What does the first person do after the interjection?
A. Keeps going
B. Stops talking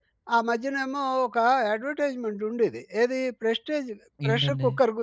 A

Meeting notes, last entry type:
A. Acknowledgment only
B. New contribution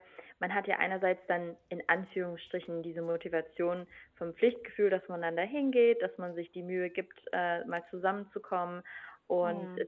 A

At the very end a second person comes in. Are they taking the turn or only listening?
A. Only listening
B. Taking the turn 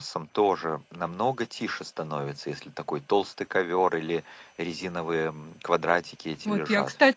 B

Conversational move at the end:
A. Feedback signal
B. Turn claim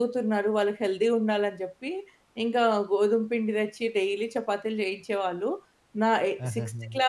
A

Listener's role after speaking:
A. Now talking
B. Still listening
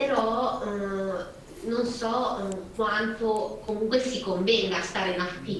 B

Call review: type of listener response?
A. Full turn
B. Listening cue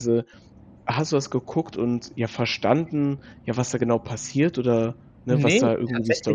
A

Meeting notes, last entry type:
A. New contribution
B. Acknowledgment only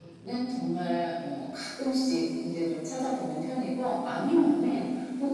B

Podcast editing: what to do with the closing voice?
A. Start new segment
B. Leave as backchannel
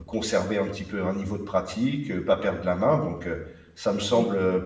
B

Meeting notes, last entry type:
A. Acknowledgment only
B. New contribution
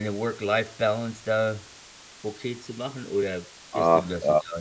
B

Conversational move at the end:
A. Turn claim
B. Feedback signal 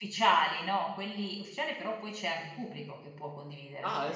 A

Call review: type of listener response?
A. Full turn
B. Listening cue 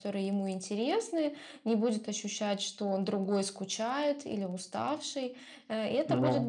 B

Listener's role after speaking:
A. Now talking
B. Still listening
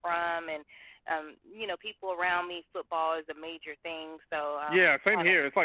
A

